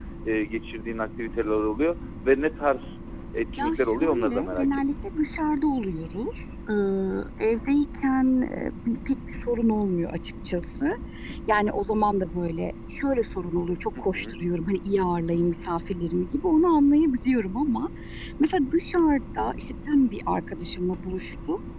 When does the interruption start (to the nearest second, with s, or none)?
4 s